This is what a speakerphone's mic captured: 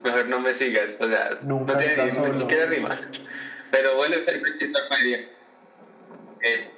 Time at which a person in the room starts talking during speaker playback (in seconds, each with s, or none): 1.4 s